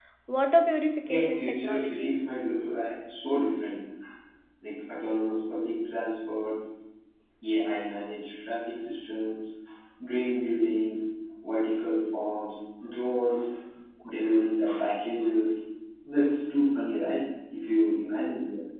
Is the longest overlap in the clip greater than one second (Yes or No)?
Yes